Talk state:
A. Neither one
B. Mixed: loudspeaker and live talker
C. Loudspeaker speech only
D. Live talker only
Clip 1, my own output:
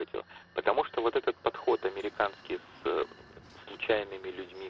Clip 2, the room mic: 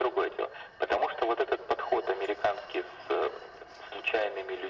C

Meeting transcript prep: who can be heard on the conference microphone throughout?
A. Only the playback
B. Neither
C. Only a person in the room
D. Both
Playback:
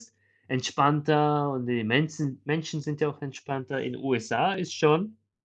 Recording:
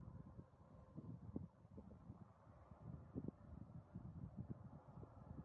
B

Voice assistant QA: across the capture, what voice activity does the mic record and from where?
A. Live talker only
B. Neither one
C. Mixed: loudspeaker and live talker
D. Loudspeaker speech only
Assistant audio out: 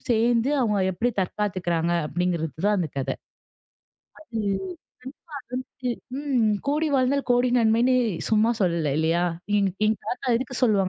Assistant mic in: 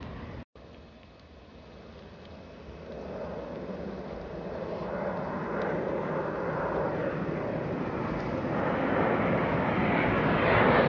B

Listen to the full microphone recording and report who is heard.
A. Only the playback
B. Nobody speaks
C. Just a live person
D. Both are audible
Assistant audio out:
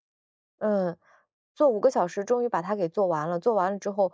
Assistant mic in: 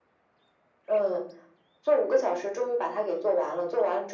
A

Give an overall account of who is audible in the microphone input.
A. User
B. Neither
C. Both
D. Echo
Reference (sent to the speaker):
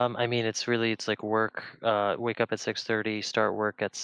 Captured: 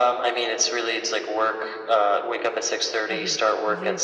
C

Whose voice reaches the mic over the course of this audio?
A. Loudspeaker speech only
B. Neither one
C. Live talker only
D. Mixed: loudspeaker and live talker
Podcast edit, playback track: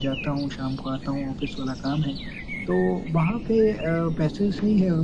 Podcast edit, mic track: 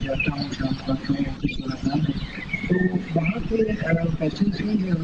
A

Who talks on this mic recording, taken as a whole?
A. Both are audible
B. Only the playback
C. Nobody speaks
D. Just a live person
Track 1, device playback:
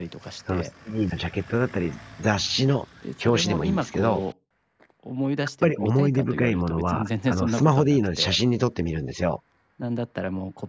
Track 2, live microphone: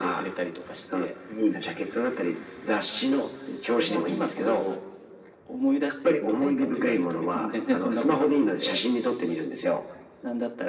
B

